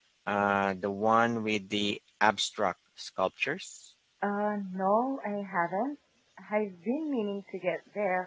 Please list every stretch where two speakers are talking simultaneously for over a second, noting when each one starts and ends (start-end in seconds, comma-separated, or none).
none